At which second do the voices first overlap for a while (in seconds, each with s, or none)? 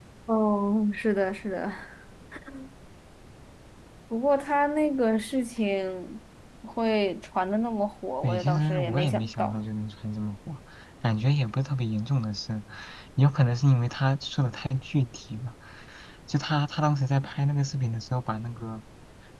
8.2 s